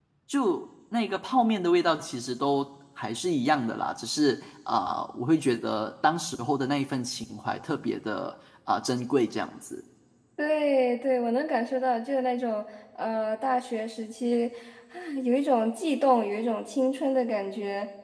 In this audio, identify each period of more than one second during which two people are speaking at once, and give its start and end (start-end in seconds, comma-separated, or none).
none